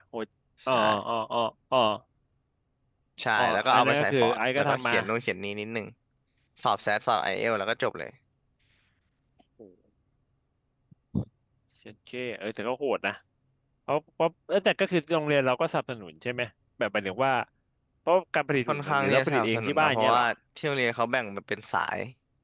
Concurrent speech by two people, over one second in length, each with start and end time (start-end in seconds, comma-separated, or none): 3.4-5.0, 18.7-20.3